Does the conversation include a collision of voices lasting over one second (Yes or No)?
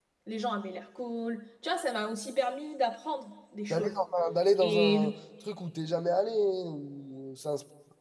No